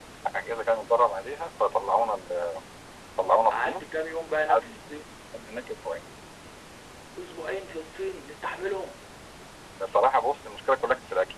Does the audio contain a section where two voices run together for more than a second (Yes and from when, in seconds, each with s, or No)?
No